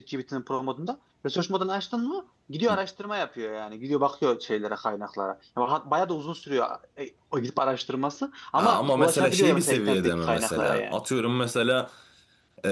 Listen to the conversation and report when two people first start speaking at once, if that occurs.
8.6 s

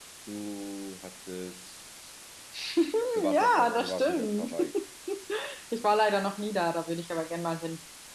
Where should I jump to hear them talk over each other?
3.3 s

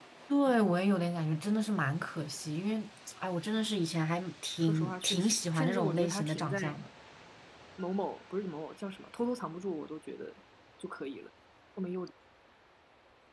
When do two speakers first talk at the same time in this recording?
4.6 s

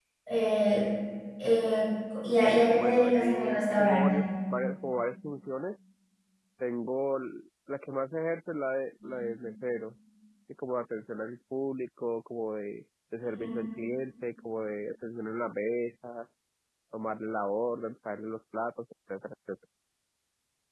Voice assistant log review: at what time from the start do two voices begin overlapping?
2.8 s

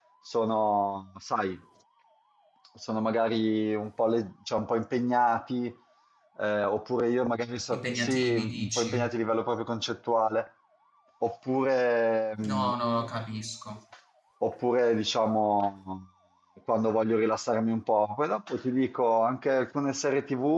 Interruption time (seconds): 7.7 s

